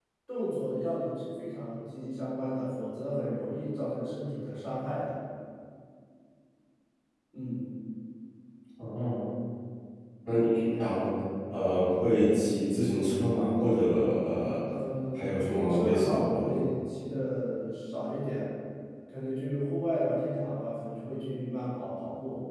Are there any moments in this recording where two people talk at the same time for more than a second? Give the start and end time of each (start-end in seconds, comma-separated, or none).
15.2-16.6